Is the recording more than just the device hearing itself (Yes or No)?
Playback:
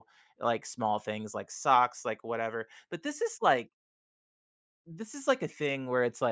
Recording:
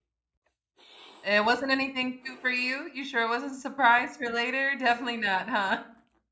Yes